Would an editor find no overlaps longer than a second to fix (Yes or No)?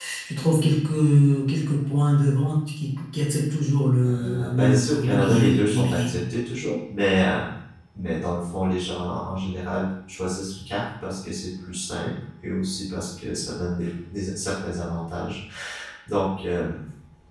No